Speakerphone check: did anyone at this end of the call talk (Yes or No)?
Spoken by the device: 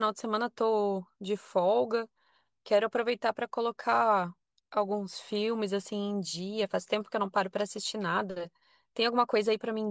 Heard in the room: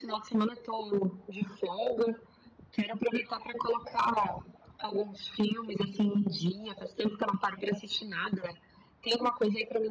No